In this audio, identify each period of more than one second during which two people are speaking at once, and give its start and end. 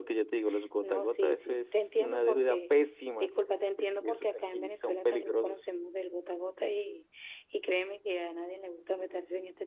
0.8-2.7, 3.8-5.6

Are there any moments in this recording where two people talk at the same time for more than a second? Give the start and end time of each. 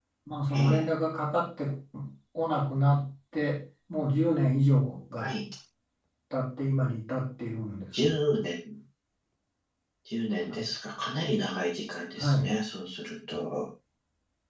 none

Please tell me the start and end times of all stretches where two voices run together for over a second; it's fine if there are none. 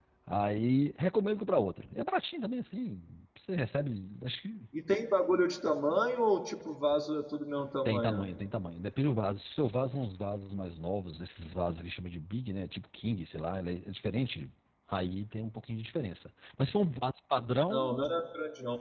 none

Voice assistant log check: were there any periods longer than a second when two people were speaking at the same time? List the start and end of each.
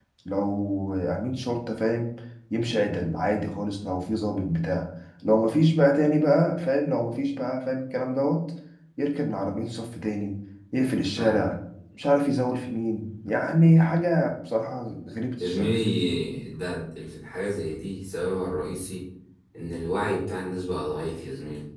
none

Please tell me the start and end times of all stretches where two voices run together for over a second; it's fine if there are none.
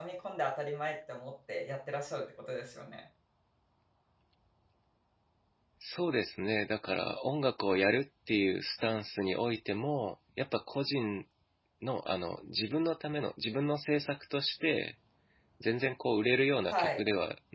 none

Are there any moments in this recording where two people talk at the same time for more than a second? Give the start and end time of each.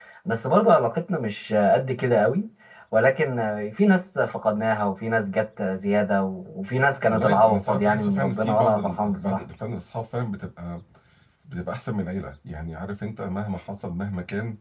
7.1-9.4

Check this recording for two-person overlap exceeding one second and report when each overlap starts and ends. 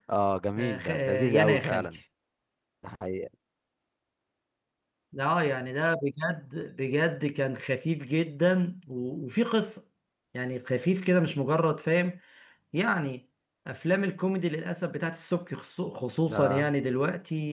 0.6-1.9

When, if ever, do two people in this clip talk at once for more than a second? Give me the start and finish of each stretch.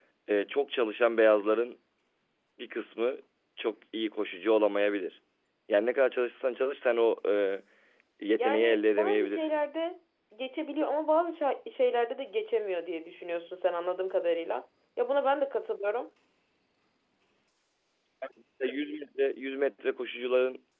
8.4-9.6

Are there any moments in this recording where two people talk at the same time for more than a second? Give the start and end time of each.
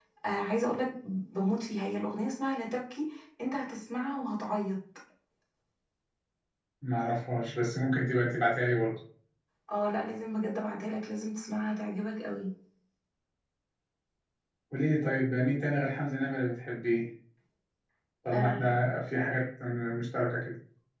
none

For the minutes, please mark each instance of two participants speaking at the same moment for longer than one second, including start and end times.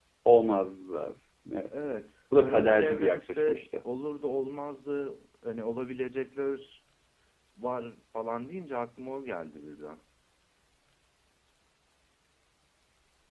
2.4-3.7

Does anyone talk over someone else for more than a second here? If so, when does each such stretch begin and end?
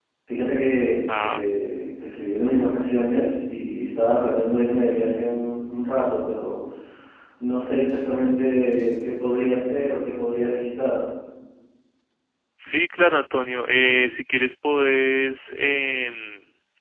none

